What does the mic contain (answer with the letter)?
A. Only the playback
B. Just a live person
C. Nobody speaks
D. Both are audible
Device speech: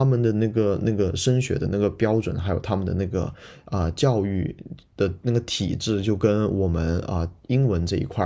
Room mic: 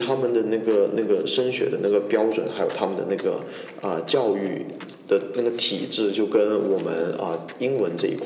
A